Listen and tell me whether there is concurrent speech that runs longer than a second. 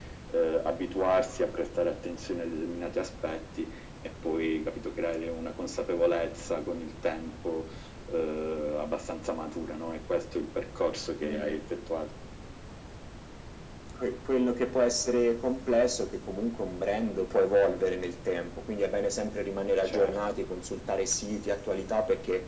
No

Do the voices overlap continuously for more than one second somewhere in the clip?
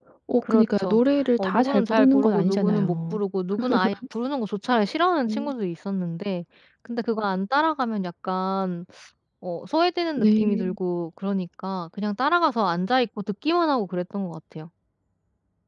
Yes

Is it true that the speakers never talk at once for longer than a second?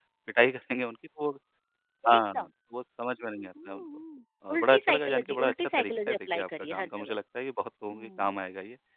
No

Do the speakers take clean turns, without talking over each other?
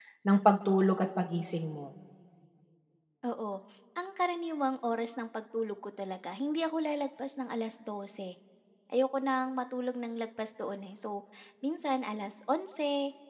Yes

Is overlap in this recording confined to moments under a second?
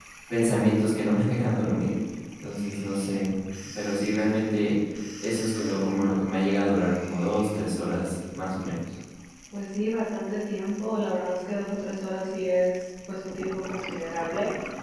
Yes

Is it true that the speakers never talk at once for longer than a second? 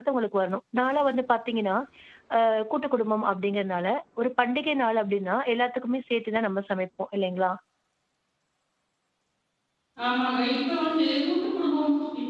Yes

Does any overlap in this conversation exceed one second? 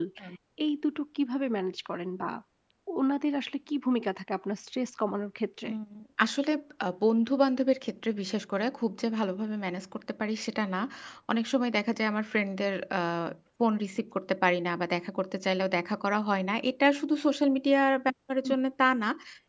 No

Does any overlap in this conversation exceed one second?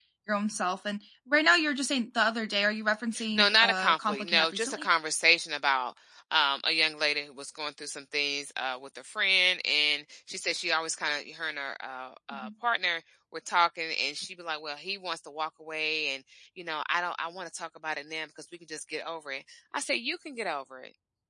Yes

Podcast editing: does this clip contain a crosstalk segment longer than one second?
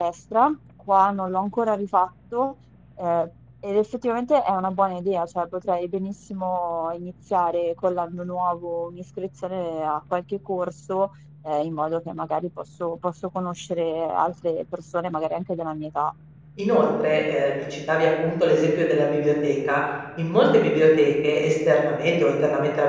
No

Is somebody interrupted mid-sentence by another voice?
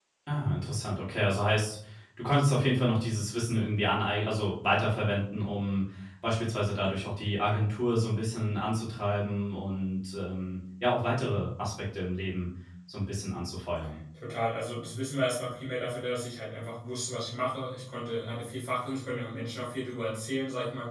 No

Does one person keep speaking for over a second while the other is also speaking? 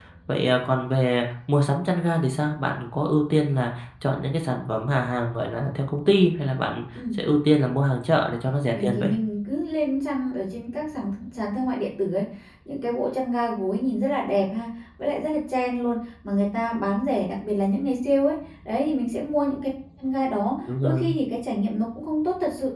No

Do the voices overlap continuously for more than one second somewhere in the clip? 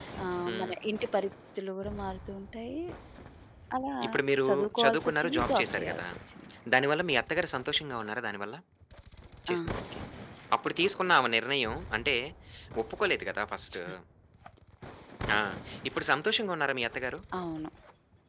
Yes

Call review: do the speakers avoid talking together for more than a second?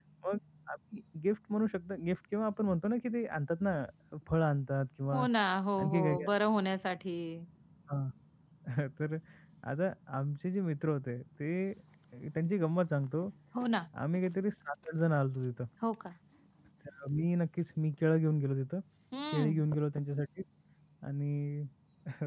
Yes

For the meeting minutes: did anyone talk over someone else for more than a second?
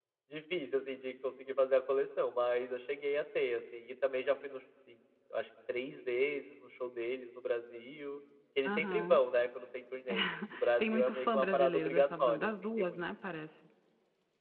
Yes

